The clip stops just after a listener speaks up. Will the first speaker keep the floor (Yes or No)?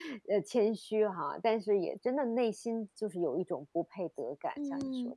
No